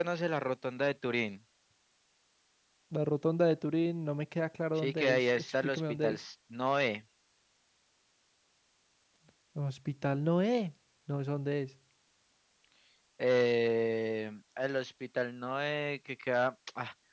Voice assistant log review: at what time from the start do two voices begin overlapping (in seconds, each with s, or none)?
4.8 s